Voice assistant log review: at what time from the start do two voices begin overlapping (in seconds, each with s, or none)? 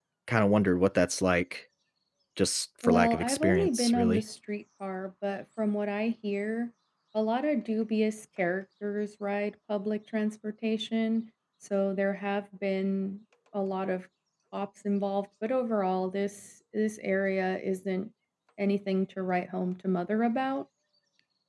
2.8 s